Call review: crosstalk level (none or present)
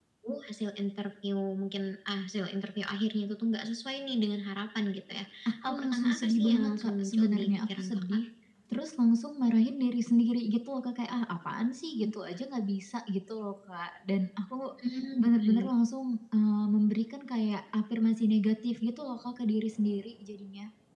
present